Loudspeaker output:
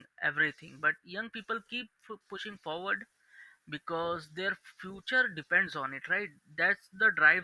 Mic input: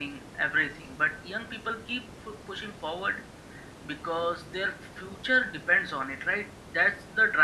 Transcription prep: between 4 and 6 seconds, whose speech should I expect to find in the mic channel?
echo only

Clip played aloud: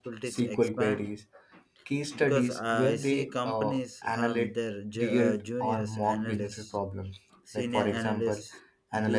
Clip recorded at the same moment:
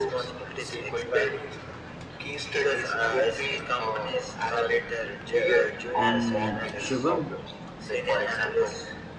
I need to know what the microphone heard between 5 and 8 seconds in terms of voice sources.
both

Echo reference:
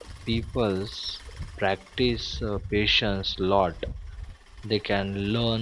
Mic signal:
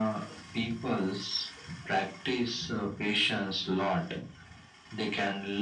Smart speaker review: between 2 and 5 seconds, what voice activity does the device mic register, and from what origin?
echo only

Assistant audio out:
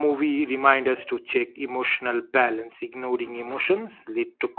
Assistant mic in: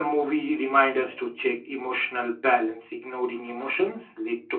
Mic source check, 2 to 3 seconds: echo only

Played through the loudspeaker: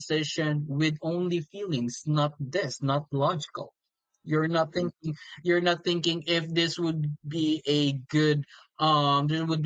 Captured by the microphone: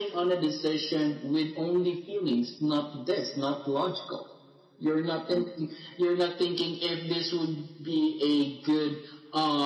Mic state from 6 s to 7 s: echo only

